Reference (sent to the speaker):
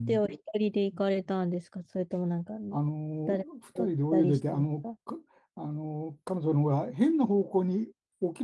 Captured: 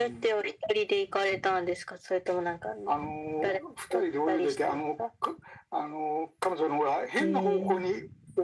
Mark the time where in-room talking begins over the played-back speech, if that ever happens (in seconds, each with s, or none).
7.2 s